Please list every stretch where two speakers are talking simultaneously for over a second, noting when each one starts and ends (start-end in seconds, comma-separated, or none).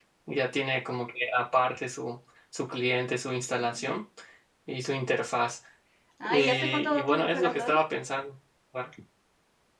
6.3-7.8